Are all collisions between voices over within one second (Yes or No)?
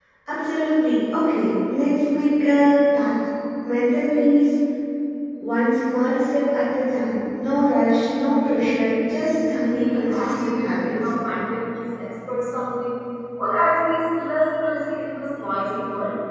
No